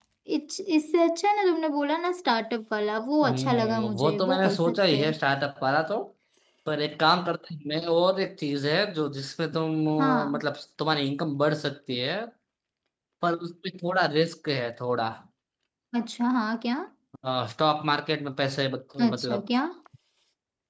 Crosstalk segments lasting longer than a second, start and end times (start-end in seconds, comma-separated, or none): 3.2-5.1